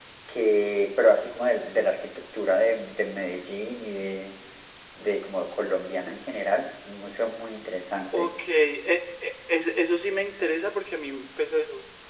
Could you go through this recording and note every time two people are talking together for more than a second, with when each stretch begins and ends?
none

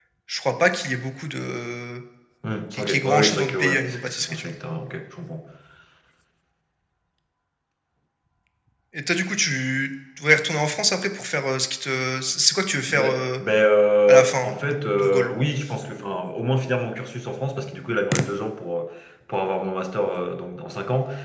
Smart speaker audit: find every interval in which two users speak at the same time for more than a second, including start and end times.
2.7-4.5

